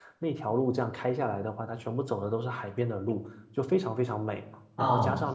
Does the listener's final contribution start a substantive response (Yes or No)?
No